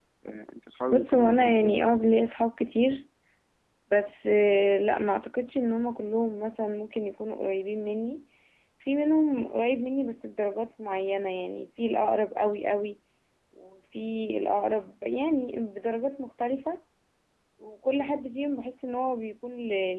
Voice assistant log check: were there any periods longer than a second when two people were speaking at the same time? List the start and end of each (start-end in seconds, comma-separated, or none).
0.9-2.2